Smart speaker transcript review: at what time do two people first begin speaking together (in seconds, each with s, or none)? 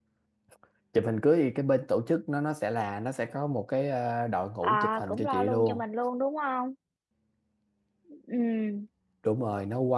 4.6 s